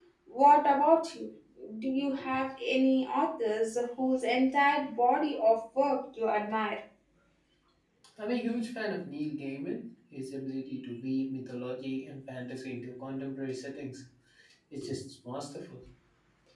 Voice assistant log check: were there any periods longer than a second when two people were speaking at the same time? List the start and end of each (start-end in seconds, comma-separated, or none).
none